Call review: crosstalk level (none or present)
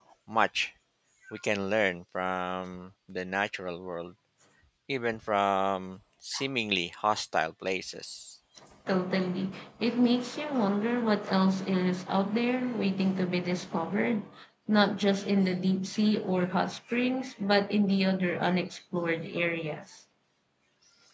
none